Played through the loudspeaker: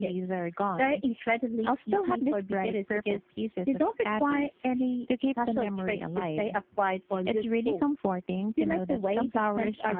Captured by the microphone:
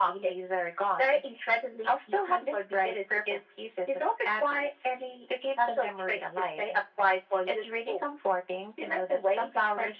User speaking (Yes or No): No